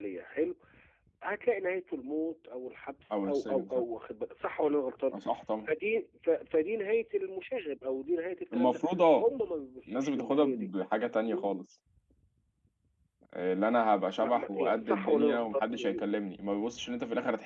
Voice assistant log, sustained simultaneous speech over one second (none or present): present